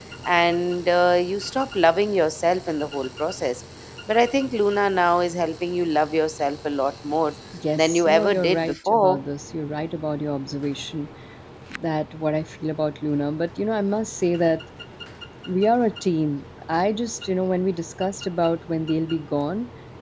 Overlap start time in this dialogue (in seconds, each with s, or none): 7.8 s